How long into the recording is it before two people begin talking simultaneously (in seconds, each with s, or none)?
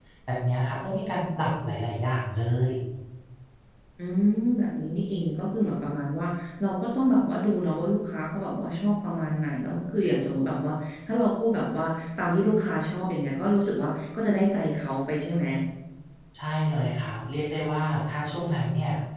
none